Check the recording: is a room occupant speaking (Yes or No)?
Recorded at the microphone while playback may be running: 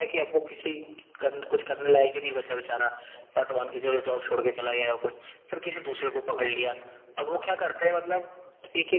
No